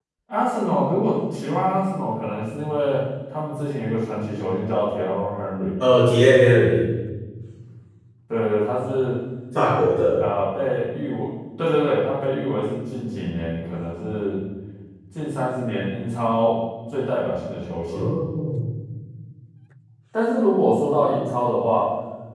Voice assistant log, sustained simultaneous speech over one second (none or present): none